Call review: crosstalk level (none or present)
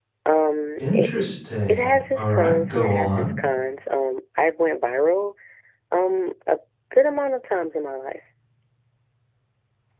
present